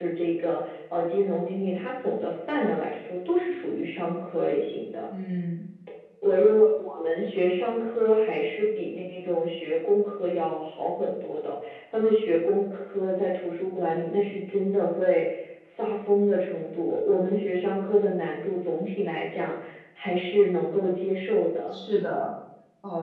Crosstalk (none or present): none